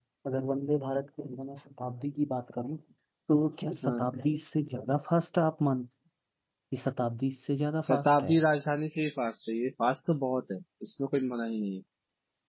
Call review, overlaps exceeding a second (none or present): none